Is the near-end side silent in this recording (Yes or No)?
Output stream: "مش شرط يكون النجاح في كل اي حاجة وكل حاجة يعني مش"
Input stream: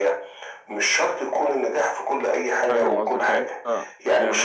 No